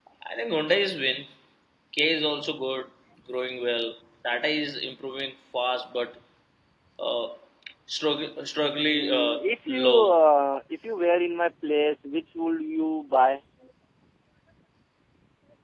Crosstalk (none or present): present